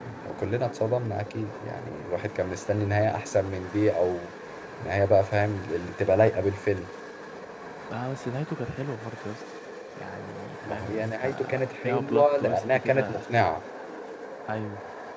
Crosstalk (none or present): present